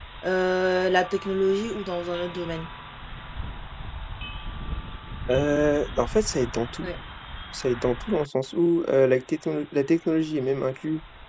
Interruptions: none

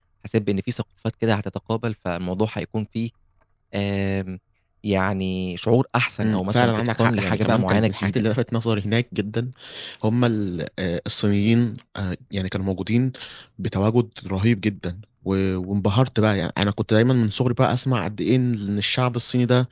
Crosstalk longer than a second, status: present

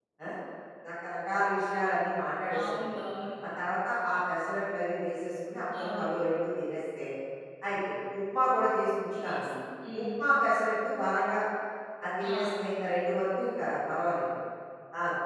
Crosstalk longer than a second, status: none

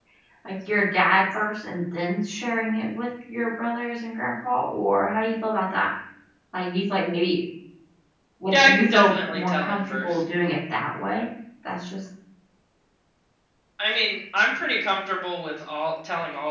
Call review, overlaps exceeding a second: present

